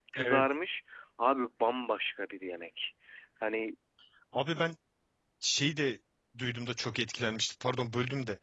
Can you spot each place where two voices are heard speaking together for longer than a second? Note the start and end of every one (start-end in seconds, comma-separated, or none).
none